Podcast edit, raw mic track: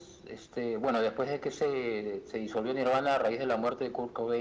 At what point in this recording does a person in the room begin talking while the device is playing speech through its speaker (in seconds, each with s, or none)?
none